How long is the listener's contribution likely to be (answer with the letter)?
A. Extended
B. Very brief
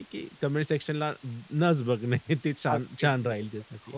A